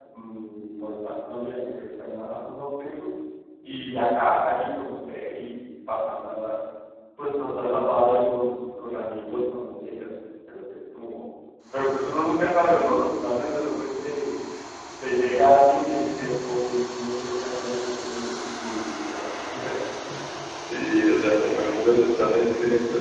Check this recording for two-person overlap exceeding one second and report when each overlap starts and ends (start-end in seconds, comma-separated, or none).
none